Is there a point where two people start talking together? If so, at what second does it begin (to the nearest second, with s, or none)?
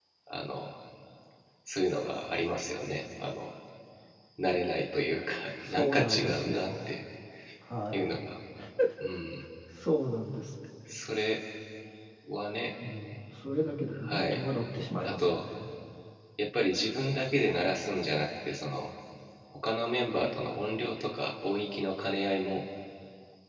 6 s